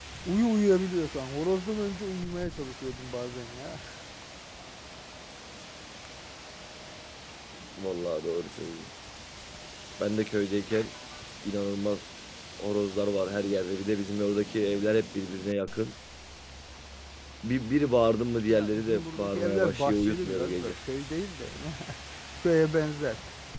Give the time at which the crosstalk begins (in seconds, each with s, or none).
18.5 s